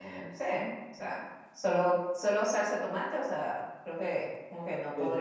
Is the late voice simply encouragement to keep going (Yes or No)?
Yes